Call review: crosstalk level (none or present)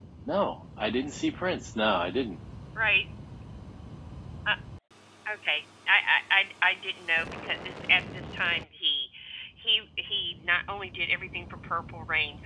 none